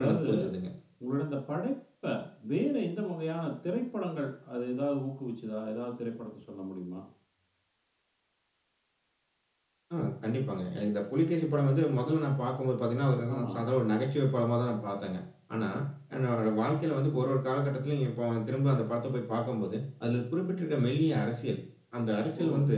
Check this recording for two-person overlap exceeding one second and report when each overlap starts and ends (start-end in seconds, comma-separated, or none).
none